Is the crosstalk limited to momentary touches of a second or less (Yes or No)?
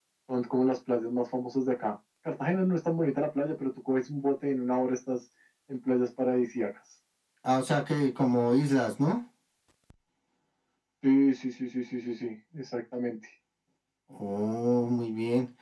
Yes